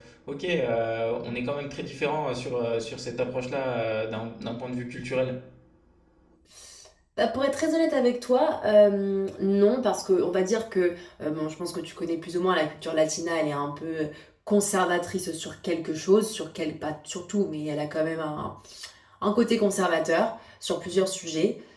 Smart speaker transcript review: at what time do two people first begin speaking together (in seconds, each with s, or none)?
none